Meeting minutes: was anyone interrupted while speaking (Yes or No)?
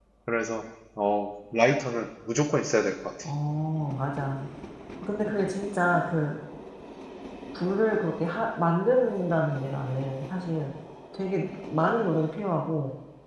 No